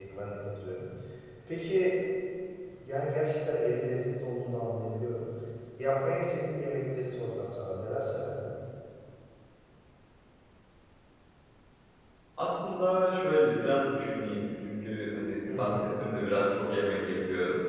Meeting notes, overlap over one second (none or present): none